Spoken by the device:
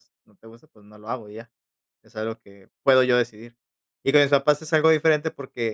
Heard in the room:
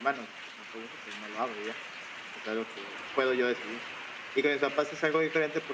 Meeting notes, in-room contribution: none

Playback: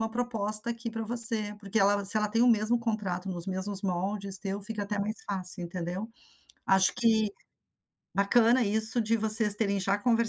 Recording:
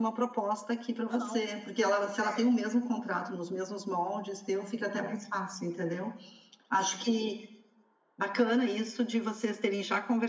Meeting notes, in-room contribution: present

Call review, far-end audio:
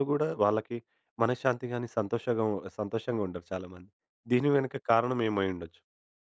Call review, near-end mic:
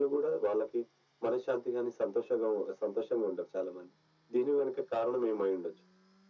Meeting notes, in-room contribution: none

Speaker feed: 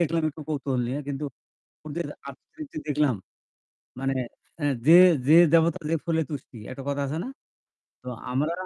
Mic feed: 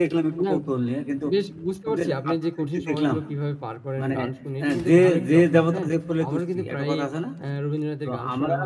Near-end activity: present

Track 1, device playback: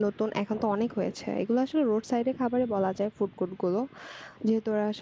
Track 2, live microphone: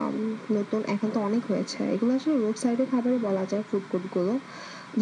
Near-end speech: none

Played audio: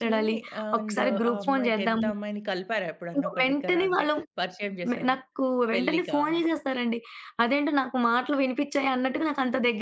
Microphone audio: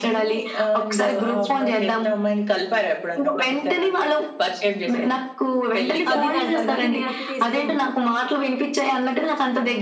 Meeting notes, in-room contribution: present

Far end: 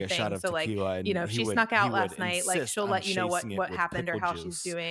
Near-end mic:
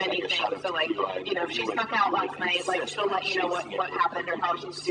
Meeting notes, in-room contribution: none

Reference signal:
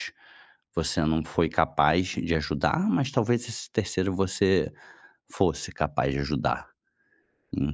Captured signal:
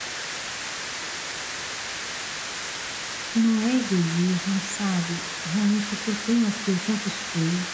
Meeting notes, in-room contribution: present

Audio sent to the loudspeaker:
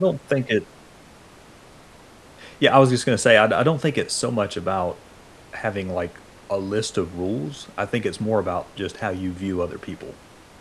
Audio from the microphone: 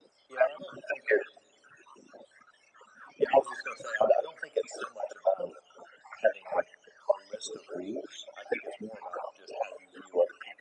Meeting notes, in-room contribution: none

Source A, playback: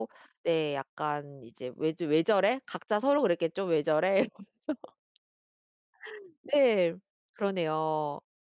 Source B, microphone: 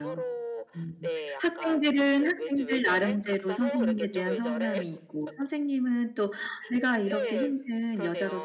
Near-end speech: present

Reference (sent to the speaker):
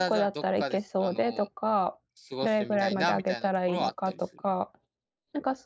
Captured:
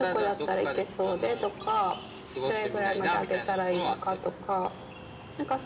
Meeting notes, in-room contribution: none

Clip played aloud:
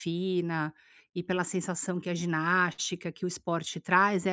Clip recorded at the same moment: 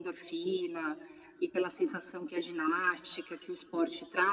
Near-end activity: none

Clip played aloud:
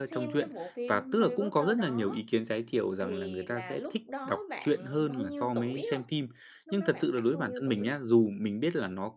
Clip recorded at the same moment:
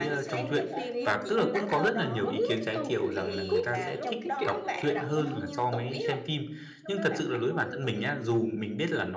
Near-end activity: present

